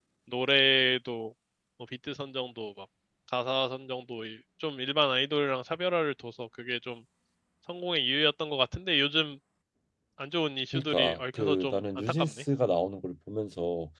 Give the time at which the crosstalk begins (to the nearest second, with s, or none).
11 s